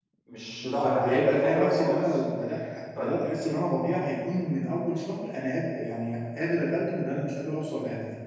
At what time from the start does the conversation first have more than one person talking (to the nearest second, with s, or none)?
1 s